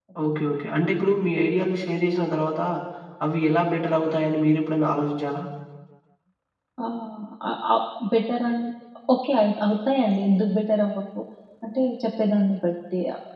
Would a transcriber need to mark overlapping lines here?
No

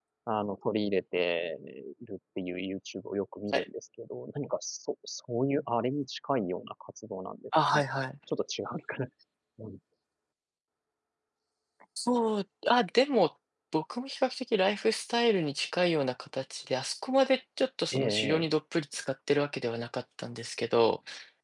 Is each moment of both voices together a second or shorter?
Yes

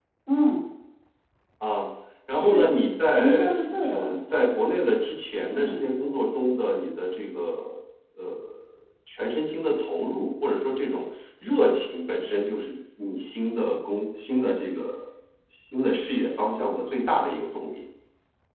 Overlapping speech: Yes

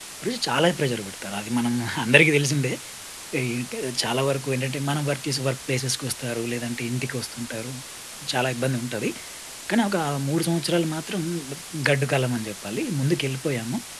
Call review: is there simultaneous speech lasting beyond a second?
No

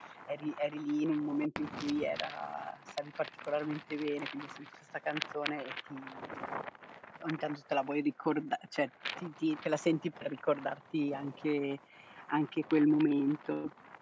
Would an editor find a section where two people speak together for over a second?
No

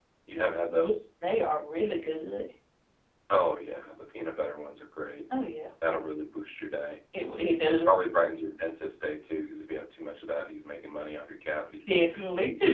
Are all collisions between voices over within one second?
Yes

